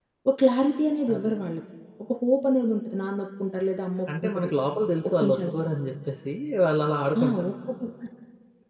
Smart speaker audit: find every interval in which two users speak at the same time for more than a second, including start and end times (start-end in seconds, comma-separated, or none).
none